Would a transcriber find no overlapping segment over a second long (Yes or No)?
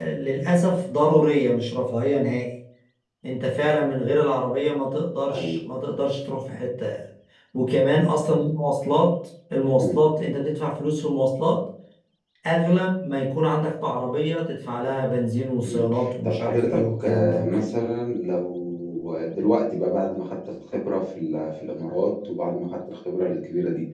No